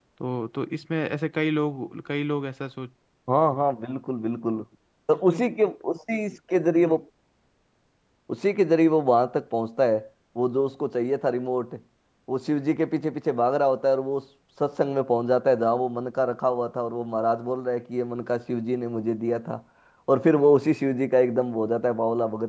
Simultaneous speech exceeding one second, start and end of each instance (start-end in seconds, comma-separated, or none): none